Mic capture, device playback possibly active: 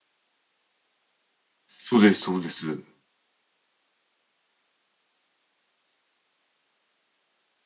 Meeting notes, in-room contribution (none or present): present